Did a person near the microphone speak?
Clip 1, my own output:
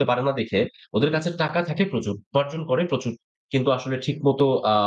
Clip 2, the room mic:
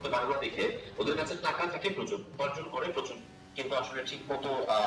No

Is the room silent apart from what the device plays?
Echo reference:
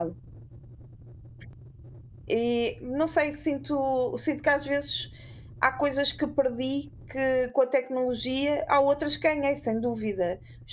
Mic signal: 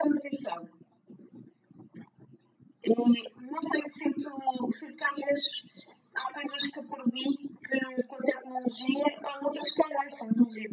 Yes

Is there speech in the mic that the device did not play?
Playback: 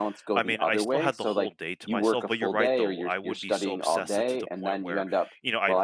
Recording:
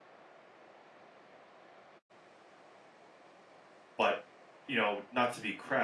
Yes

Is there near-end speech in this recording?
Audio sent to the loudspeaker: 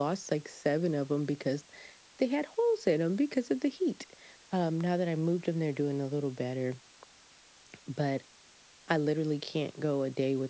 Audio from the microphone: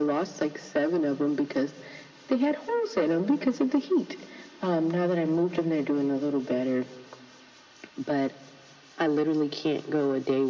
No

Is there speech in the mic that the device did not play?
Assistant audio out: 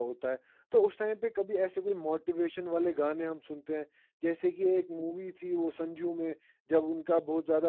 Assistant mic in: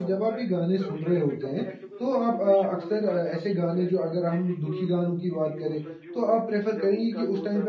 Yes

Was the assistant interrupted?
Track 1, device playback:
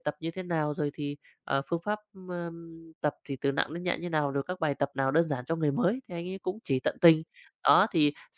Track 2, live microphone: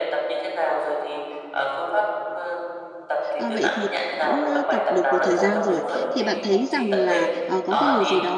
Yes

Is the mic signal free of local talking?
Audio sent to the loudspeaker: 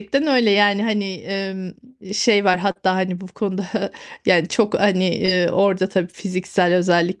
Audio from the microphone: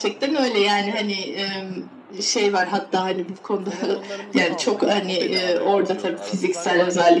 No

